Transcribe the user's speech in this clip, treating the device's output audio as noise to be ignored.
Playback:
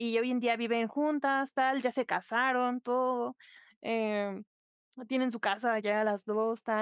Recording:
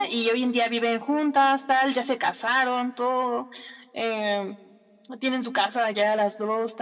none

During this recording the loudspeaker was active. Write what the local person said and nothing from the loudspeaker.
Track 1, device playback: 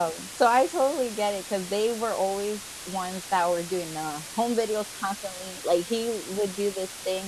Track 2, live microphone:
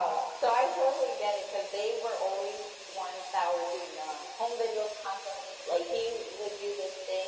none

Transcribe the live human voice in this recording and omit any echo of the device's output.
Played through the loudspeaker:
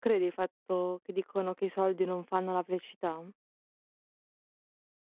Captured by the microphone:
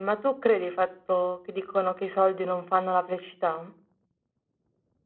none

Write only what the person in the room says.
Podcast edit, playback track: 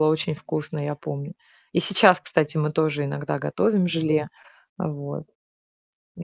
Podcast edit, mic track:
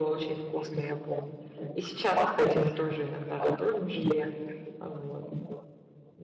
none

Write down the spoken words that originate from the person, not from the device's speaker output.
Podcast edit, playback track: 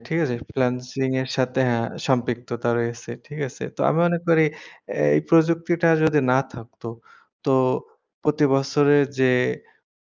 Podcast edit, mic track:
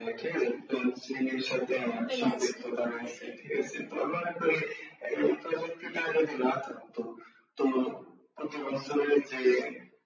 freelance কে করছে, জি হুম।

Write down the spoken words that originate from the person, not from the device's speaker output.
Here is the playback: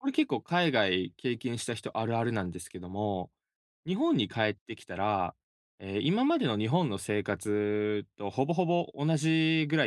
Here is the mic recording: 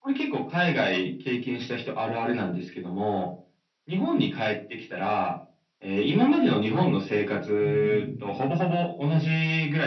うんうん。

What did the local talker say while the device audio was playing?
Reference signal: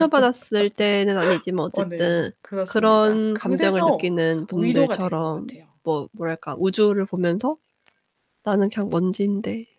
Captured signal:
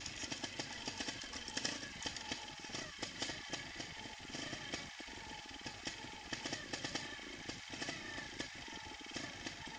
none

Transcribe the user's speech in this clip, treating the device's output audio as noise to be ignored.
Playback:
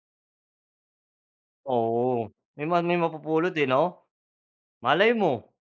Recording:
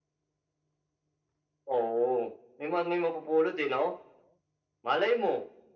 none

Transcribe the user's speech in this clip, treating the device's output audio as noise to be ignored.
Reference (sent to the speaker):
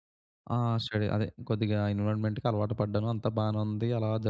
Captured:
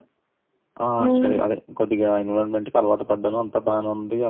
హ్మ్.

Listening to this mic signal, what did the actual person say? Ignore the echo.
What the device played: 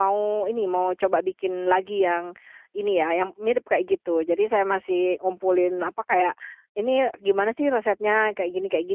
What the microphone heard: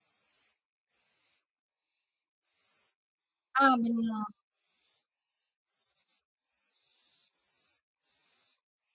Ah, bener.

